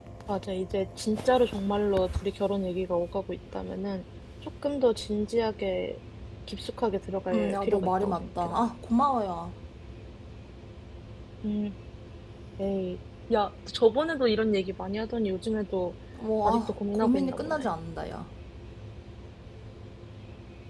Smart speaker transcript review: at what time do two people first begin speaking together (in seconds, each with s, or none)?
7.3 s